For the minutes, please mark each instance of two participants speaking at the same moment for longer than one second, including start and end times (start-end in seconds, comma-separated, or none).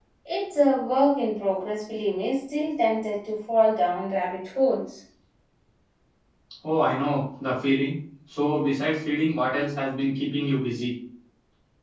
none